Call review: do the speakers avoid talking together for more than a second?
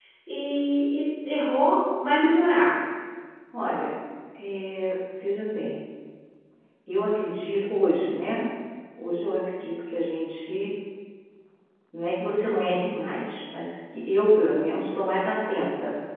Yes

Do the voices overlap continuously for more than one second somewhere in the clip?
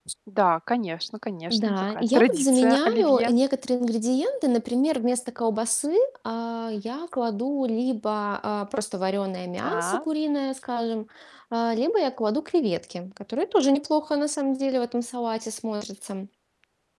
Yes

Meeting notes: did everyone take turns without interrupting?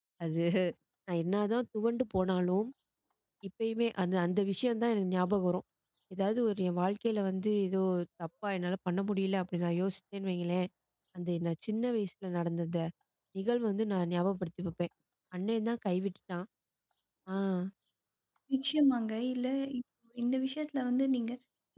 Yes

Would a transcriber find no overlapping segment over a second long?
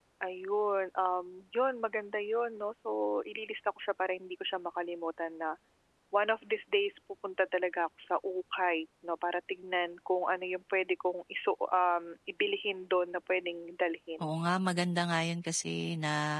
Yes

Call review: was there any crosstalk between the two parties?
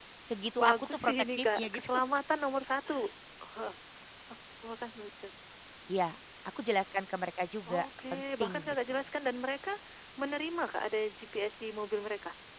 Yes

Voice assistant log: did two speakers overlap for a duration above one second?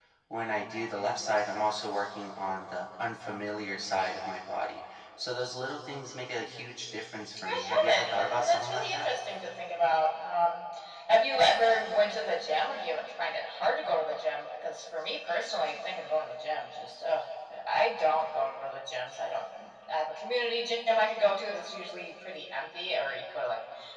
Yes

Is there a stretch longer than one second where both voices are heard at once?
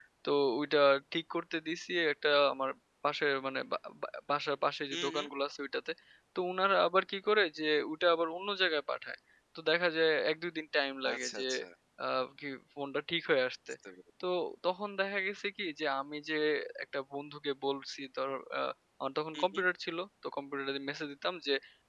No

